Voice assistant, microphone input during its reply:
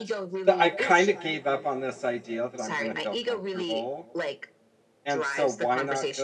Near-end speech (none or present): present